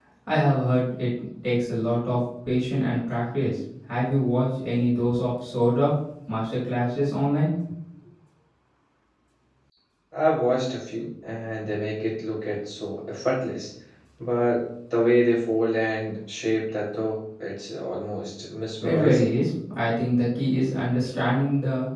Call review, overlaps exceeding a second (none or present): none